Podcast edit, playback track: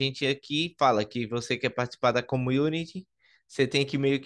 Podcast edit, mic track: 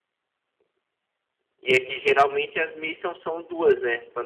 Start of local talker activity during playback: 2 s

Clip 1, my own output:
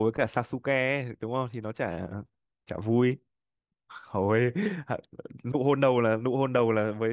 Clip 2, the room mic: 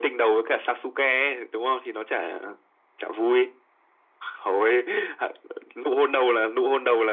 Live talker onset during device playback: none

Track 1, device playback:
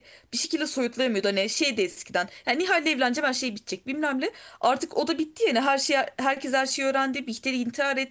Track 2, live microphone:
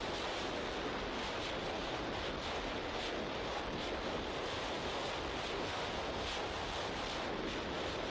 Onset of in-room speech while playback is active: none

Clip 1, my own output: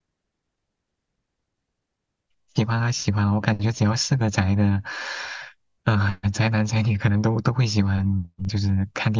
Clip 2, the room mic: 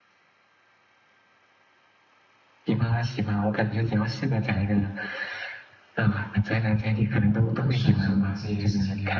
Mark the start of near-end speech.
8 s

